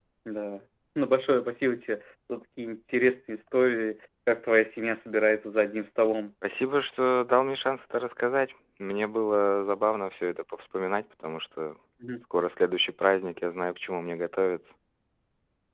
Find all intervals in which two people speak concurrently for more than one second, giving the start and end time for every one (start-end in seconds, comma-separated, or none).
none